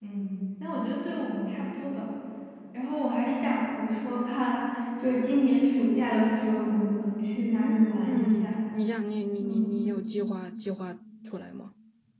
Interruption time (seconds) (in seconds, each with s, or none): 7.4 s